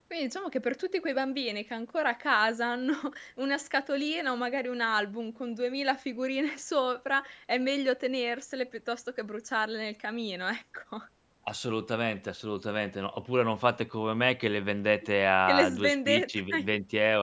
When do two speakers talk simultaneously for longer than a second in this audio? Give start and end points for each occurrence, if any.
15.5-16.7

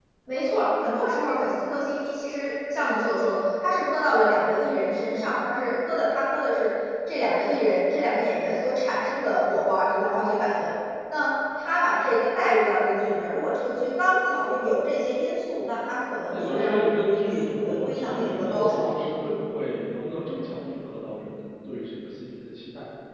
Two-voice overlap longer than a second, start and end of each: 16.3-18.9

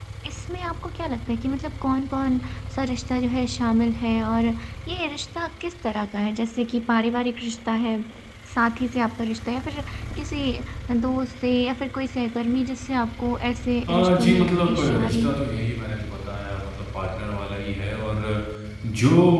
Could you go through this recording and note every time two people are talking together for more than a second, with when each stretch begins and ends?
13.9-15.4

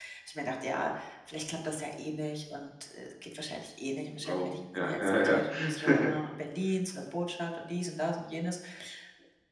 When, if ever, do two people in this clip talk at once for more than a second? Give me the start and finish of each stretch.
4.3-6.1

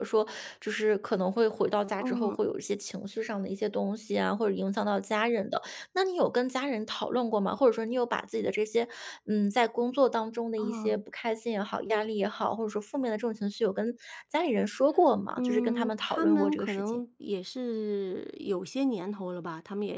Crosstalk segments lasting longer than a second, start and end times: 15.3-17.0

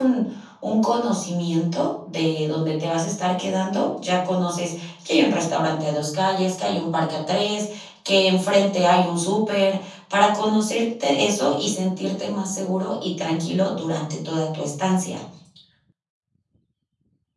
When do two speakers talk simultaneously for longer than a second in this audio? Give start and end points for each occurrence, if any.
none

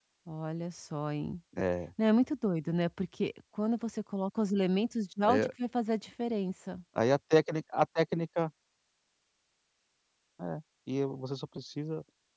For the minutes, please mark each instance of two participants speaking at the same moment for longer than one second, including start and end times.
none

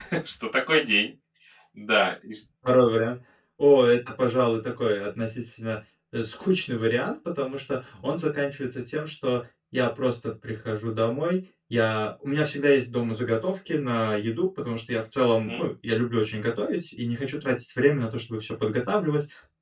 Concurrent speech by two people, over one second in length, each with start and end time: none

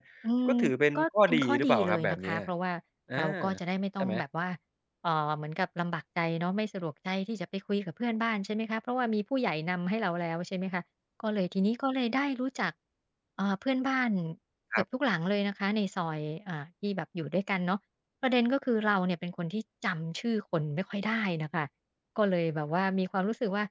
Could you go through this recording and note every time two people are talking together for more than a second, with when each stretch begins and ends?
1.0-2.4

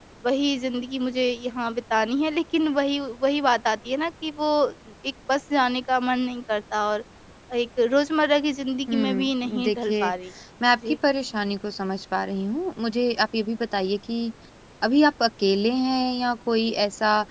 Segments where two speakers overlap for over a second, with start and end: 8.9-10.1

